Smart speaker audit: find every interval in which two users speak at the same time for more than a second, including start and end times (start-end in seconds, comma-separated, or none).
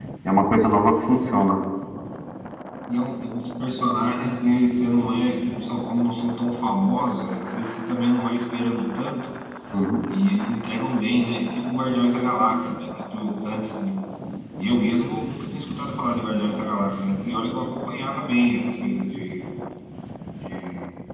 none